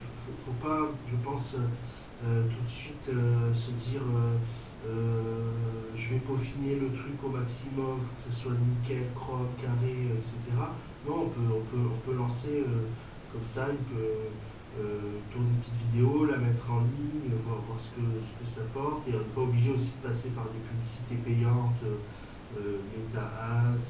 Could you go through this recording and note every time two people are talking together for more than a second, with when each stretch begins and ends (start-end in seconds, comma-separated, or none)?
none